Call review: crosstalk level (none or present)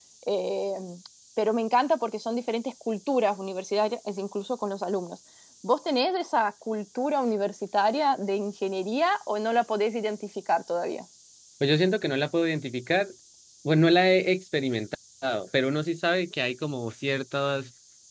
none